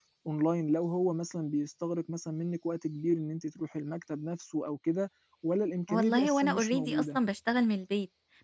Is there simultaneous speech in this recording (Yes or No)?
Yes